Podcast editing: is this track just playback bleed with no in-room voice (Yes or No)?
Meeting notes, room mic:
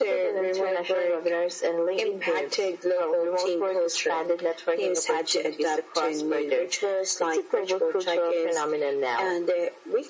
Yes